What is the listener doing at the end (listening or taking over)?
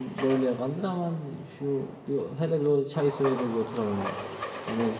listening